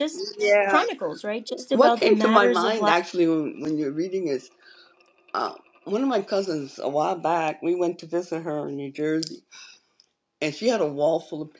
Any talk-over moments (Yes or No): Yes